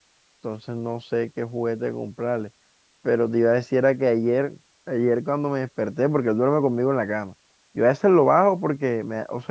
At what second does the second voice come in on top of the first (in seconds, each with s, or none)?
none